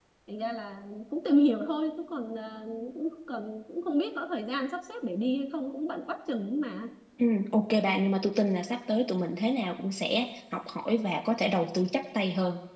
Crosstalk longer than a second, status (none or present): none